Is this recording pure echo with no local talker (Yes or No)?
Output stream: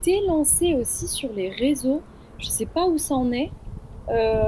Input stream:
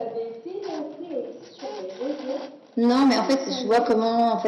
No